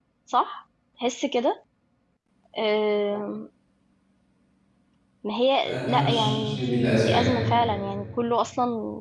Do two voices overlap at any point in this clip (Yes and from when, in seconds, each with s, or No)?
Yes, from 5.7 s